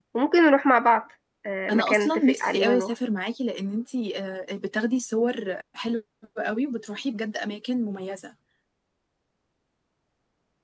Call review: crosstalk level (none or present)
present